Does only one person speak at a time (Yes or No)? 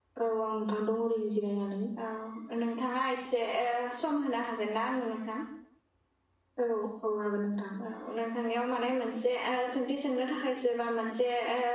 Yes